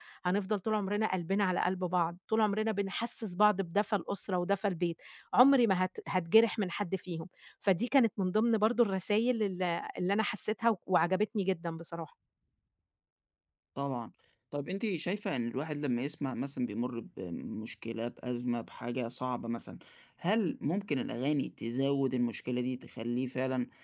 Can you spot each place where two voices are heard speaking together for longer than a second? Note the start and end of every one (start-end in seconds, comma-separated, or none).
none